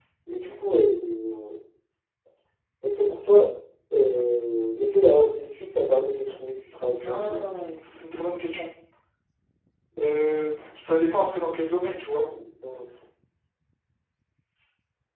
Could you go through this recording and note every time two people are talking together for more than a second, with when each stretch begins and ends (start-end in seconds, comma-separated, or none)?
none